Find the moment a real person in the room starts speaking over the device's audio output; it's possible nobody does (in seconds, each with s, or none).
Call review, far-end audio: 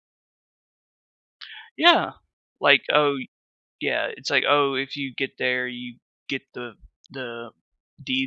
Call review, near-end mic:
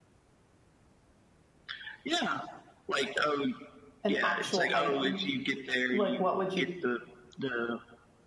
4.0 s